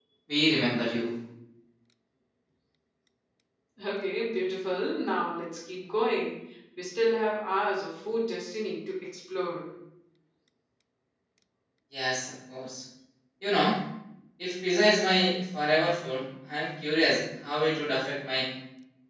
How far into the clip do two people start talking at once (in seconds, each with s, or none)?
none